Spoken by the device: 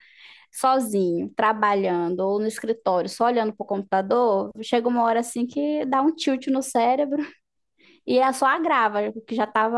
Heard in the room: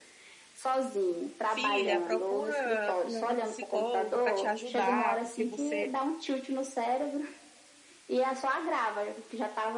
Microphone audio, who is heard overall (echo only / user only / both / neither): both